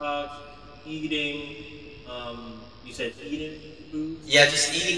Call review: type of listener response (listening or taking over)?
taking over